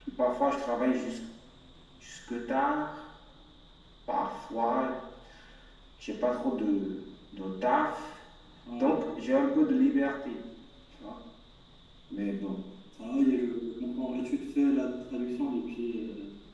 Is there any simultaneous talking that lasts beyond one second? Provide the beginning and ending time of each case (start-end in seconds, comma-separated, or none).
none